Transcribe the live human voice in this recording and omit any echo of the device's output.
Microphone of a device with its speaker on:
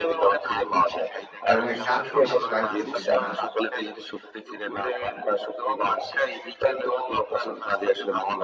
এবং একটা আত্মবিশ্বাস লাগতেছে যে না,

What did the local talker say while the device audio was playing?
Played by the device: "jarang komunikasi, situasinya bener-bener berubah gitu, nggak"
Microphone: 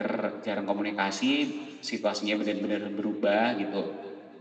none

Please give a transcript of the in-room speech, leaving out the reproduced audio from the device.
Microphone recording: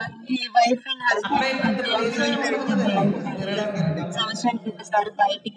అక్కడ ఈ పెద్ద ప్లేస్ ఏమి ఉండదు కదండీ! తిరగడానికని మాల్‌ది.

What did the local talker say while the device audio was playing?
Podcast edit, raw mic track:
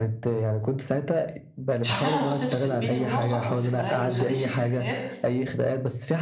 هتعرف تفصل بين الواقع والذكريات، ما تخلّيش الذكريات

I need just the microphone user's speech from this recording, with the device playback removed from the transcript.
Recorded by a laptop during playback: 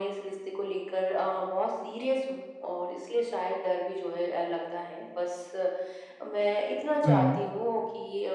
हुँ।

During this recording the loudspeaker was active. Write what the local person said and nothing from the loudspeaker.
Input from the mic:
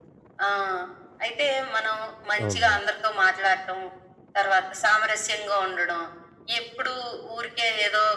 అవునవును.

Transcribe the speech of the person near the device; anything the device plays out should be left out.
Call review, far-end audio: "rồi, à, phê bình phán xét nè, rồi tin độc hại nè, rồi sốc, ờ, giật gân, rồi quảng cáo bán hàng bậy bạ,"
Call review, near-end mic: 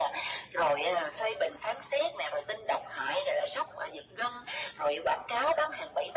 none

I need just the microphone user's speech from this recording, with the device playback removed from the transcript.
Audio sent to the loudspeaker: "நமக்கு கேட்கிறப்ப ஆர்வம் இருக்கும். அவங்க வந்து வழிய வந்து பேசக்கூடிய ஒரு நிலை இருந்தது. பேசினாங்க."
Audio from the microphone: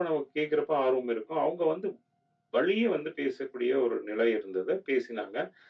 none

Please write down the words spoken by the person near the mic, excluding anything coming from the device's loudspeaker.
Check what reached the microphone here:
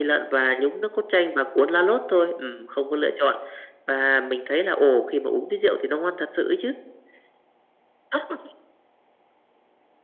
none

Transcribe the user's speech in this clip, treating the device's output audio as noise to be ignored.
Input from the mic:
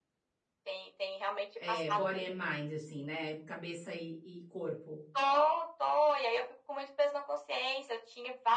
É, body and mind, assim, né, cabeça e e corpo.

